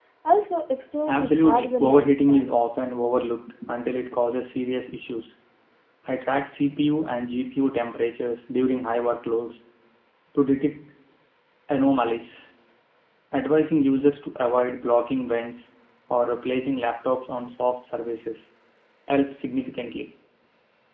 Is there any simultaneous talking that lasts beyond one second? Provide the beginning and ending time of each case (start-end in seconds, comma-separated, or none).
1.1-2.5